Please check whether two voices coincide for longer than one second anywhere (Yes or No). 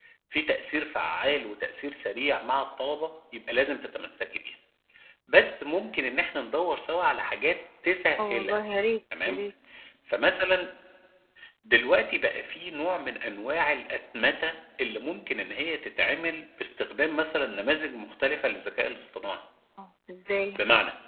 No